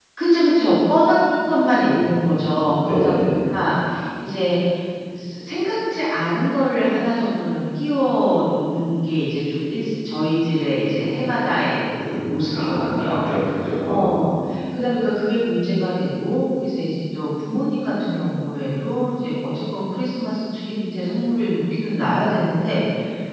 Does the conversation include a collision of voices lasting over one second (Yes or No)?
Yes